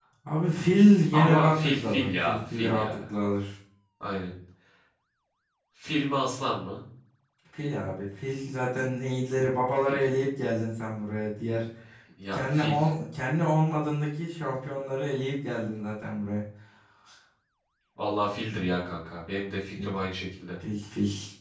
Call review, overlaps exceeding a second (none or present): present